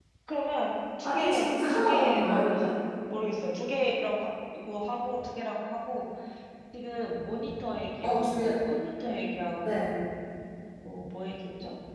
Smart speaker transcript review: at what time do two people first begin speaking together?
1.0 s

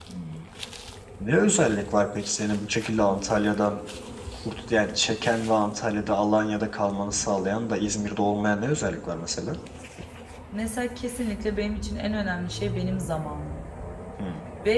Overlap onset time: none

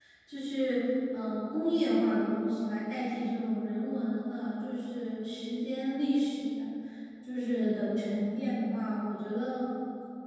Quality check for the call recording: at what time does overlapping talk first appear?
none

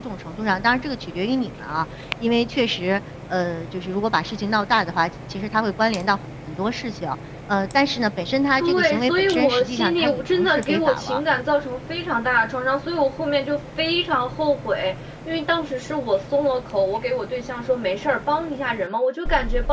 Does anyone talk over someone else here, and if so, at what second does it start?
8.6 s

